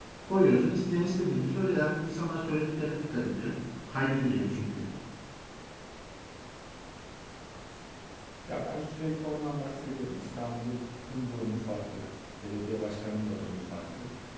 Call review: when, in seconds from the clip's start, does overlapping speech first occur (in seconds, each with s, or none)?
none